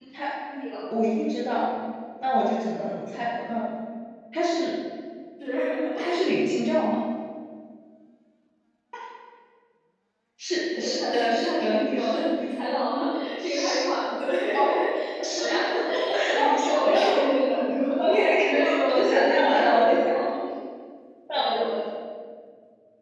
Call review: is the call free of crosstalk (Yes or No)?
No